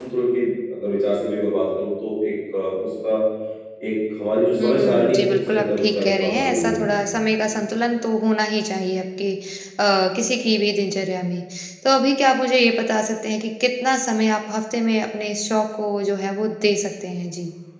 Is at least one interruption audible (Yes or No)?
Yes